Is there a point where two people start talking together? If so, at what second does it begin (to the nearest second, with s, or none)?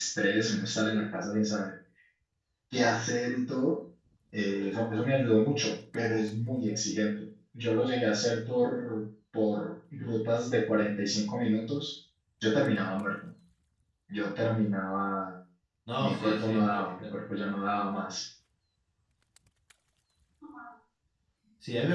16 s